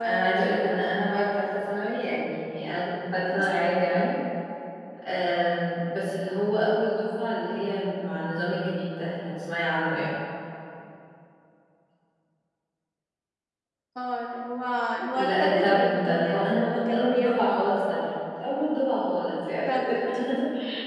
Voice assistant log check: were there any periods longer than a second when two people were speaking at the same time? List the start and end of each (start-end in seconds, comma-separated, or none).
15.1-17.4